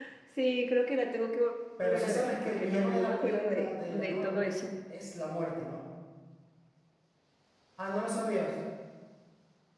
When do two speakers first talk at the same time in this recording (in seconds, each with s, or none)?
1.8 s